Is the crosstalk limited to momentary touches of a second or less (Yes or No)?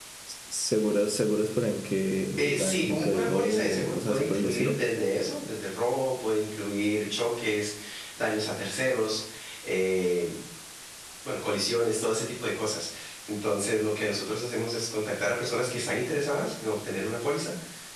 No